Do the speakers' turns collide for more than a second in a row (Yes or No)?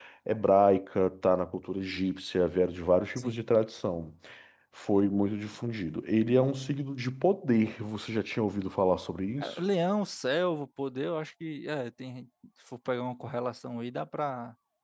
No